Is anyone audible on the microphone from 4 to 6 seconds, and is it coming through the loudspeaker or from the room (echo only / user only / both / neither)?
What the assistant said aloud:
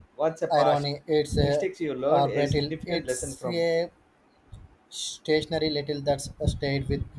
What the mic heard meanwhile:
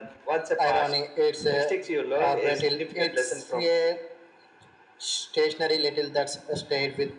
echo only